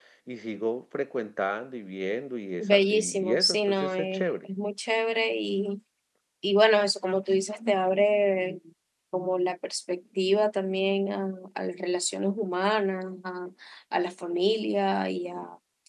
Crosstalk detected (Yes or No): Yes